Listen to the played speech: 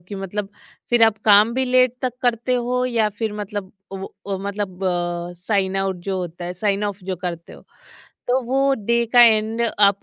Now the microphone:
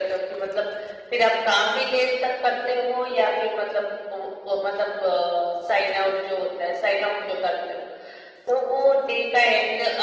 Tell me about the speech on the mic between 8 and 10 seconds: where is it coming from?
echo only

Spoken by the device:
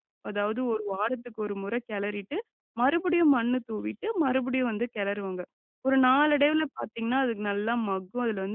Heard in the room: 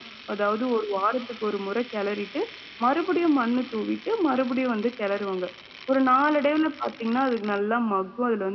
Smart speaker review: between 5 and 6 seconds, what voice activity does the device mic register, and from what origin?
echo only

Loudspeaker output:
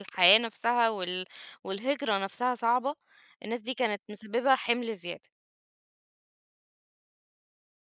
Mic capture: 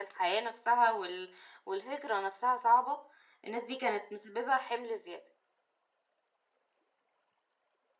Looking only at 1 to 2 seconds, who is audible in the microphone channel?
echo only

